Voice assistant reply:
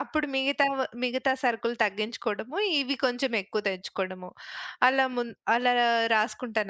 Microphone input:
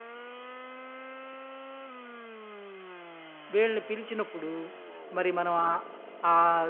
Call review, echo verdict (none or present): none